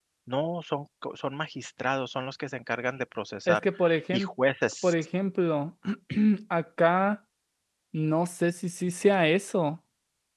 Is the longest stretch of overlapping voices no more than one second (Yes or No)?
Yes